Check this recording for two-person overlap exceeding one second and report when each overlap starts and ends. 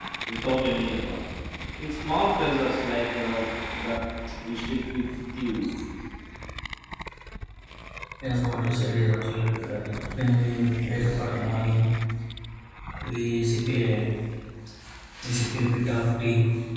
none

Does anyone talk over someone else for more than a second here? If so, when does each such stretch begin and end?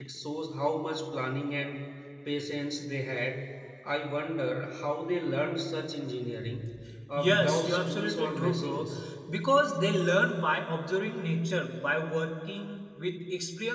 7.2-8.9

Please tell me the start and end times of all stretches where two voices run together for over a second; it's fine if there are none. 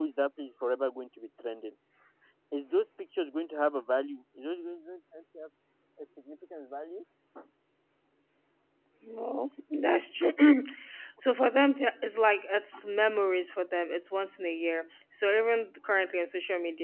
none

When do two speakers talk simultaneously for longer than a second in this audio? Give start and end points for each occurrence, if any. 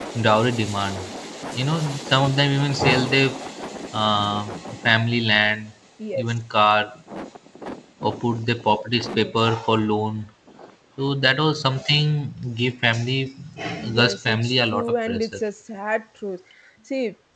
14.0-15.4

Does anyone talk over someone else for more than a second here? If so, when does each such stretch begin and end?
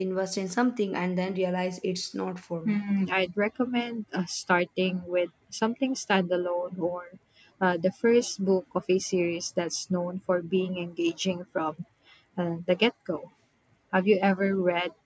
none

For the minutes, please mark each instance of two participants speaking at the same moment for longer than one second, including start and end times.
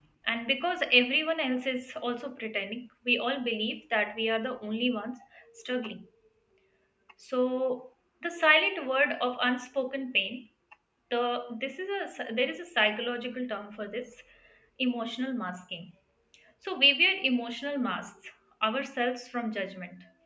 none

